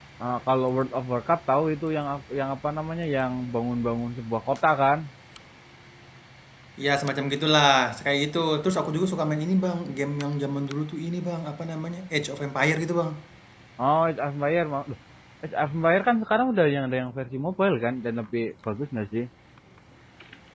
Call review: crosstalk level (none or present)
none